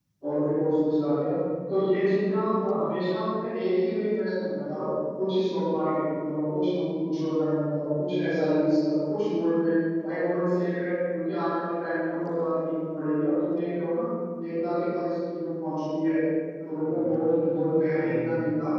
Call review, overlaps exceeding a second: present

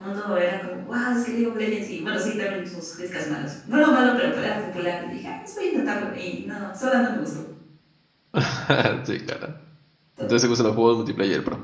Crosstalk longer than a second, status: none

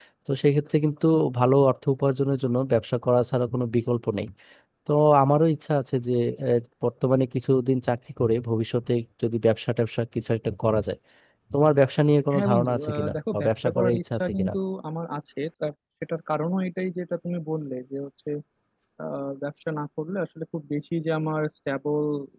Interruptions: present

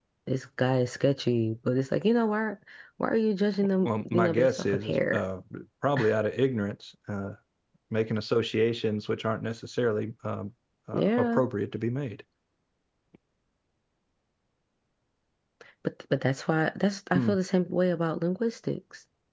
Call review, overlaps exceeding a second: present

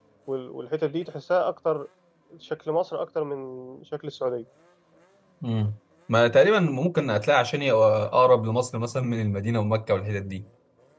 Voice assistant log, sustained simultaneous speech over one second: none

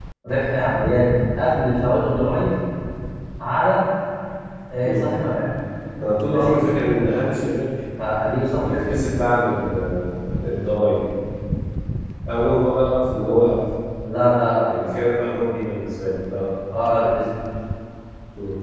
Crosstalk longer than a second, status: none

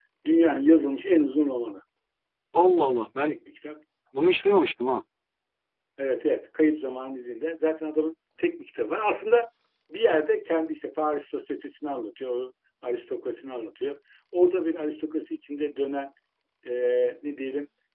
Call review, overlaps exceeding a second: none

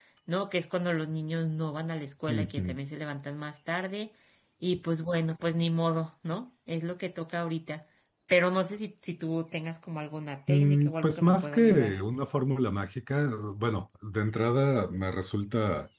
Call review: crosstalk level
present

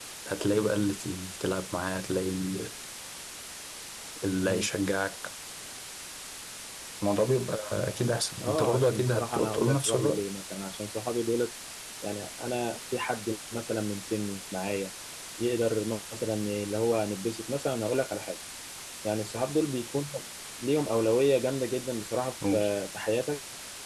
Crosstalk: present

